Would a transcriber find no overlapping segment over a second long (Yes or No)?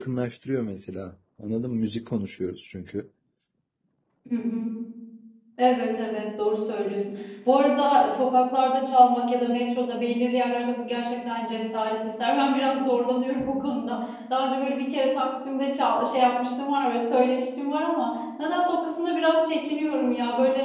Yes